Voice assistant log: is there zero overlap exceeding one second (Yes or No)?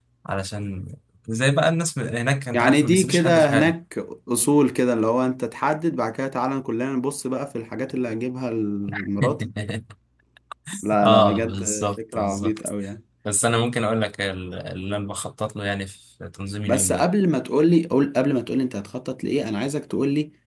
No